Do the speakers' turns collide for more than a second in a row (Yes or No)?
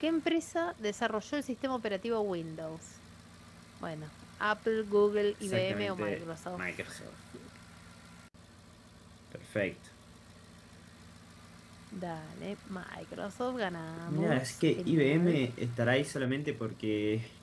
Yes